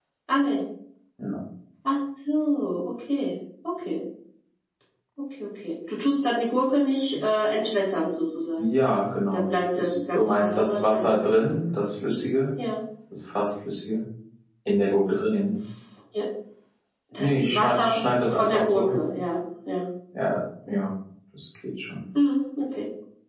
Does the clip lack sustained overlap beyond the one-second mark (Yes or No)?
No